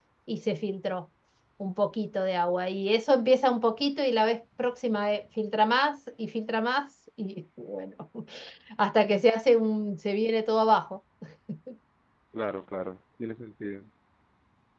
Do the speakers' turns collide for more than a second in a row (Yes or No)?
No